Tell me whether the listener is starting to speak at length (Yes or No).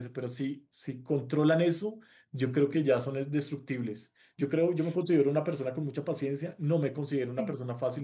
No